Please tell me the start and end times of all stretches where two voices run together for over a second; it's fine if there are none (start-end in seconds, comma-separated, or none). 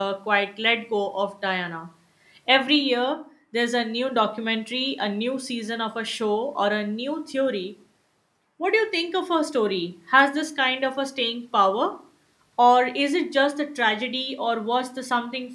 none